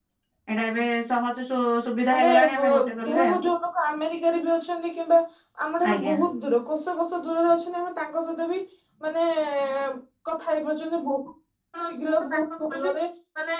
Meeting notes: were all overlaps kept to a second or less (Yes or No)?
No